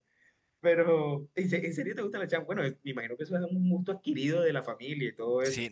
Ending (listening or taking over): taking over